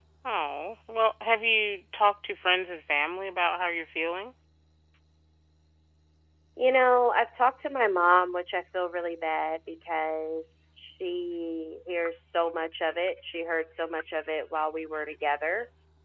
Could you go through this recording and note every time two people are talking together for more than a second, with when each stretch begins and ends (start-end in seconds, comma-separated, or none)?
none